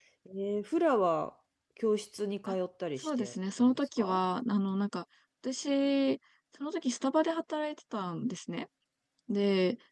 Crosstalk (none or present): present